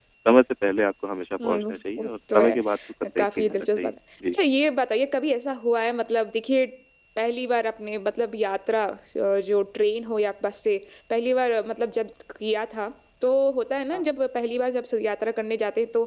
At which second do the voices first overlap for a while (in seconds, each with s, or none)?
1.4 s